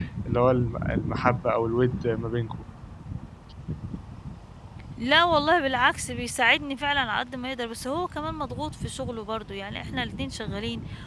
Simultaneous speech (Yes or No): No